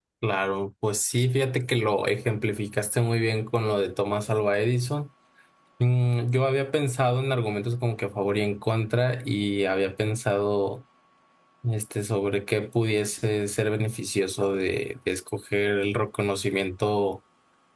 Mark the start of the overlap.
none

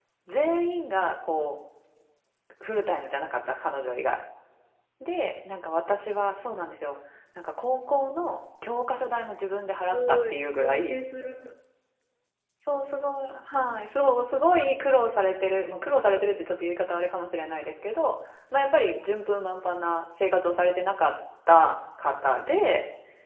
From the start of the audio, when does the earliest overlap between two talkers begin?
10 s

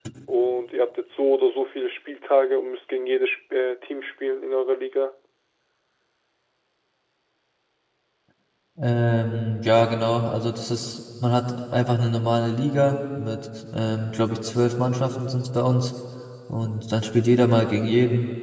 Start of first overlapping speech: none

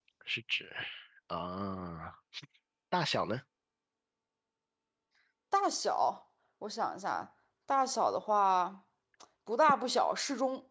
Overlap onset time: none

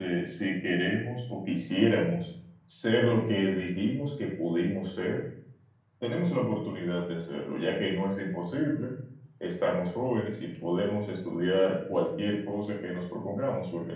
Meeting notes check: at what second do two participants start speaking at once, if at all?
none

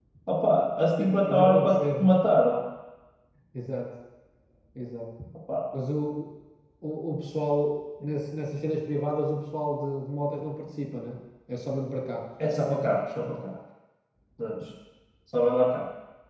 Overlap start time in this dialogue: 1 s

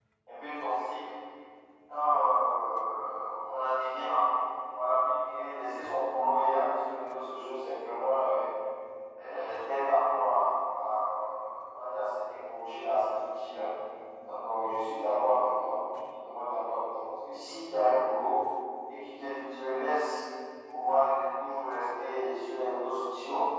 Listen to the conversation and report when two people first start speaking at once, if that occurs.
none

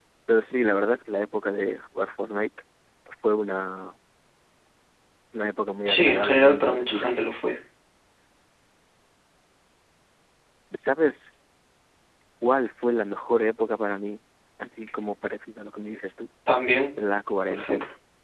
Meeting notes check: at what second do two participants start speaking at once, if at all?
6 s

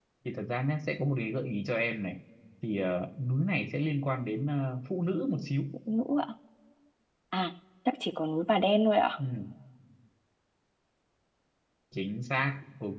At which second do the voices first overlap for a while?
none

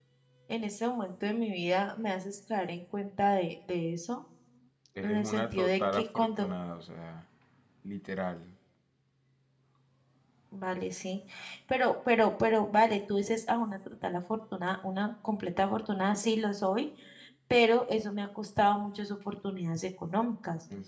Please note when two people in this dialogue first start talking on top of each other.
5 s

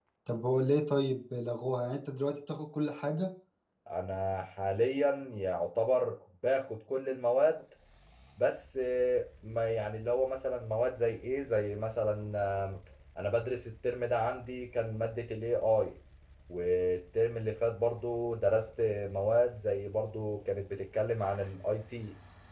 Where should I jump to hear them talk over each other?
none

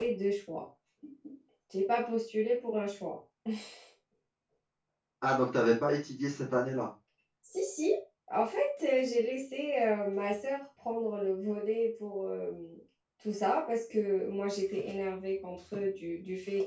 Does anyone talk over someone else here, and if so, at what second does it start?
none

